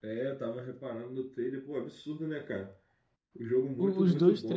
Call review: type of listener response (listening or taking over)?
taking over